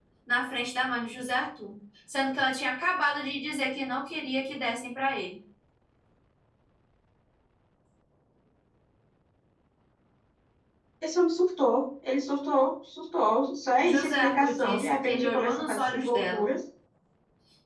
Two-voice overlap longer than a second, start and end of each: 13.8-16.5

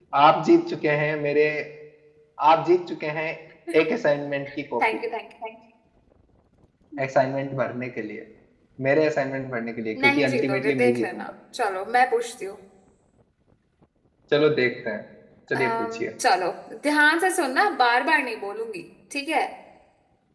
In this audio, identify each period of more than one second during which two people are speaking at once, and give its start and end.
10.0-11.3

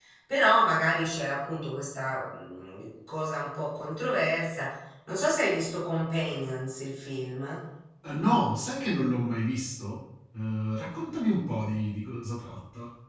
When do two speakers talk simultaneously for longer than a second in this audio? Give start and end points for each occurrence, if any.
none

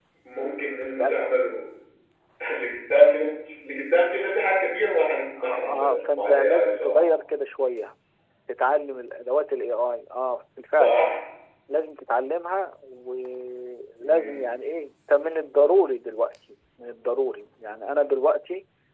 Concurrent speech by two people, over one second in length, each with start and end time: 5.4-7.1

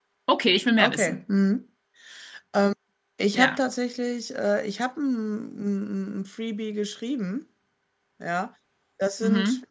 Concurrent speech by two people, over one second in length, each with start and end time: none

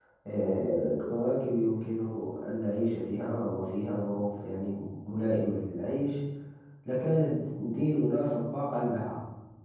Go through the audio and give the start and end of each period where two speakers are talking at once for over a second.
none

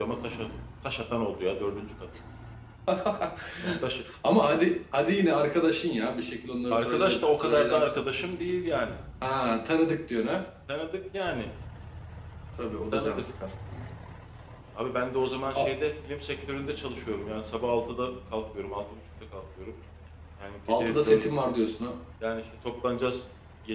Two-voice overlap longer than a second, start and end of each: 6.7-8.0

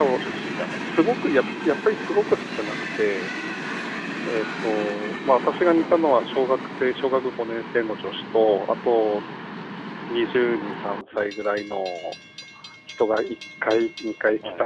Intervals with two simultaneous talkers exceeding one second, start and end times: none

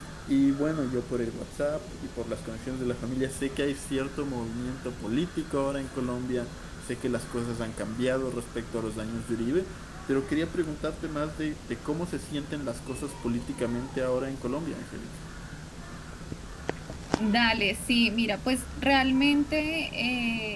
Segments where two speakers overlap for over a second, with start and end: none

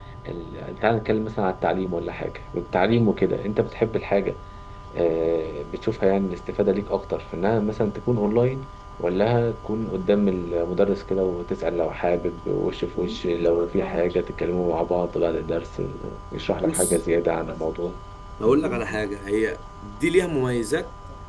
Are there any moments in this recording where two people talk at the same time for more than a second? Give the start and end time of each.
none

